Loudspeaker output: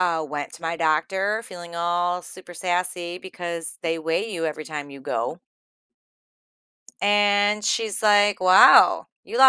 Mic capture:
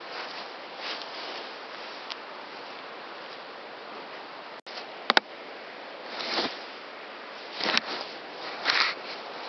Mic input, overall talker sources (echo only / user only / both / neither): neither